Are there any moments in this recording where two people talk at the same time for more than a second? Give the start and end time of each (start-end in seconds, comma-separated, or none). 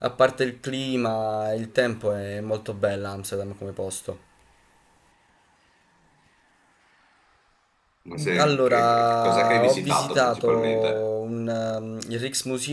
8.4-11.0